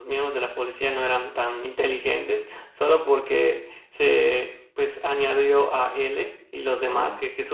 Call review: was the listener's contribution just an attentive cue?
Yes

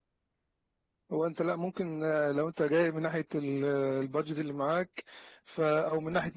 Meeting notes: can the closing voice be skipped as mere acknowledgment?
Yes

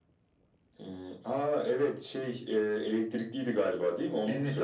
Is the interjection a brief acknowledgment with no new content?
No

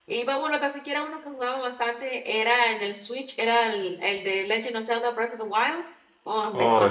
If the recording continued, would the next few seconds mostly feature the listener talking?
No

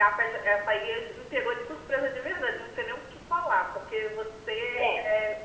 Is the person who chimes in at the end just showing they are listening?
Yes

